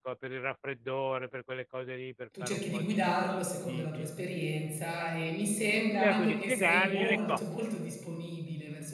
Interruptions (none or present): present